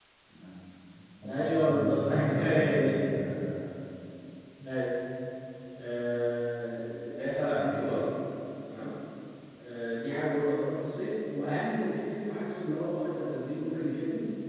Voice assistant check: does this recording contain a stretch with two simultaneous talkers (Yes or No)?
Yes